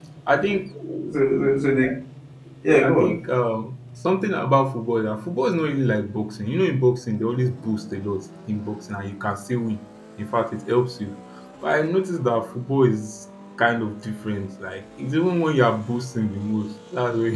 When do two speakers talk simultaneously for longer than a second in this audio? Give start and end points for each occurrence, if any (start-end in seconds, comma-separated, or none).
none